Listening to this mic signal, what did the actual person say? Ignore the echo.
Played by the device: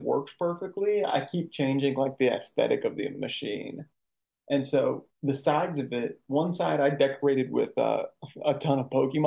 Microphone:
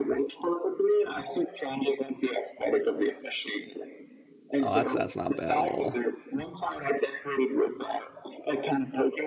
Oh, that's that's not bad at all.

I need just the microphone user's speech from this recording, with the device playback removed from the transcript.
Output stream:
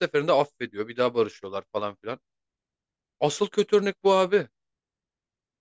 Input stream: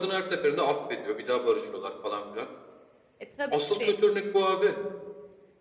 E tabii.

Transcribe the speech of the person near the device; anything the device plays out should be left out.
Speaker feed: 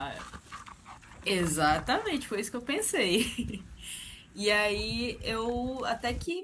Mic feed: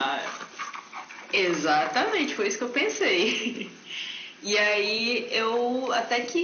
none

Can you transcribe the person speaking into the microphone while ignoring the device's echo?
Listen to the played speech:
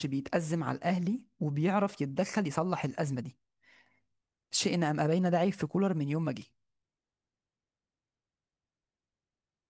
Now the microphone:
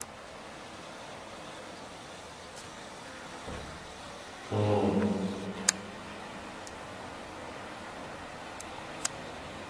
امم

